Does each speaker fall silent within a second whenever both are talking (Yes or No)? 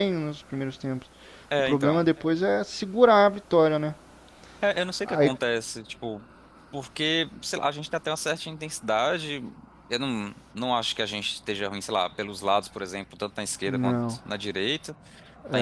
Yes